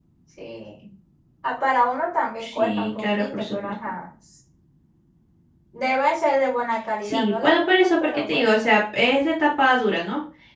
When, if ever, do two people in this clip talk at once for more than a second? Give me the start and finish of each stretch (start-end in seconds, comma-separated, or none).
2.4-3.7, 7.0-8.5